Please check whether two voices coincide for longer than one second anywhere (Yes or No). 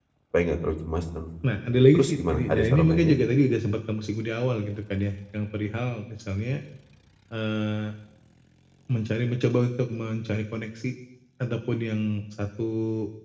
Yes